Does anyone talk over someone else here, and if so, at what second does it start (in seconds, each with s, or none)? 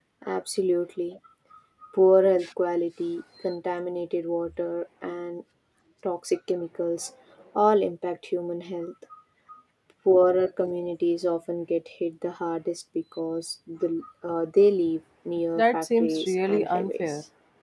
15.6 s